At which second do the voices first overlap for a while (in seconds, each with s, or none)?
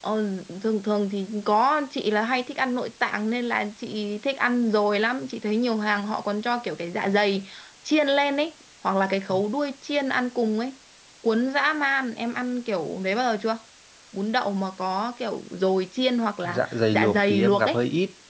16.4 s